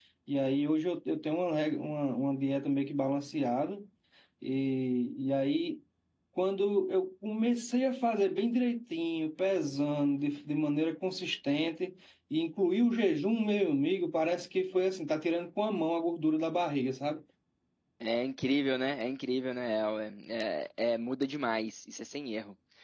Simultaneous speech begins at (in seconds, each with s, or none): none